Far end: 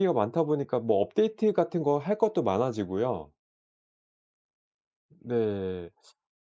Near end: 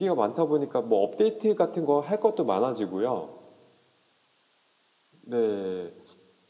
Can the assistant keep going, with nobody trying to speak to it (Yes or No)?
Yes